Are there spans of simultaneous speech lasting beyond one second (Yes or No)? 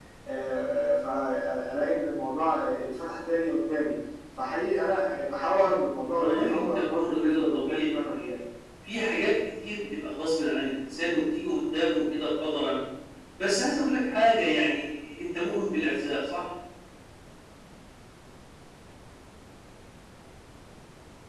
Yes